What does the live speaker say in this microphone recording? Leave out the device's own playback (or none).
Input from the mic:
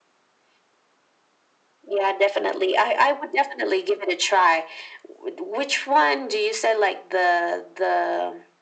none